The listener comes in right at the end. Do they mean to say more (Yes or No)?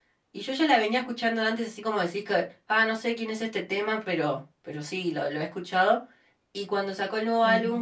No